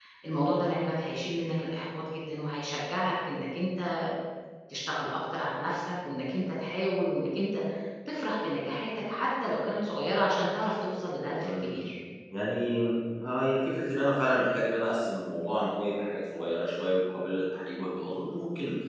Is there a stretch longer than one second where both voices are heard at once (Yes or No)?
No